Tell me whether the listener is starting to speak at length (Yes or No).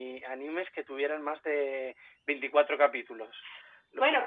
Yes